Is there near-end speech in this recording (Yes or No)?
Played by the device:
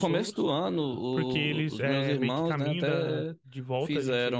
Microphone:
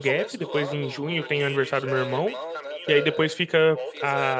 Yes